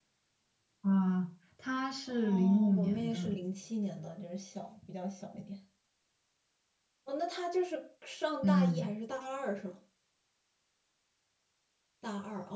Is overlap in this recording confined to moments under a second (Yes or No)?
No